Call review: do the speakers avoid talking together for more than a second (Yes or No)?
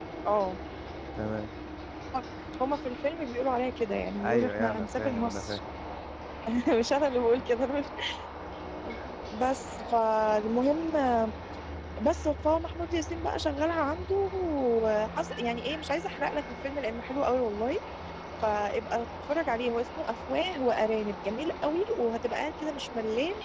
No